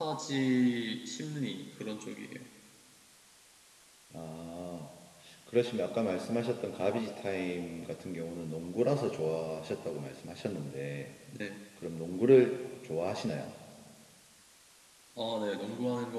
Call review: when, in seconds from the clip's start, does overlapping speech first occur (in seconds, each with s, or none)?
none